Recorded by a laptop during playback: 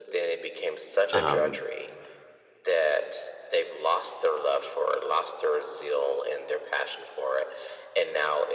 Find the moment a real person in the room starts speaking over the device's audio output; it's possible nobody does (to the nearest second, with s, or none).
1 s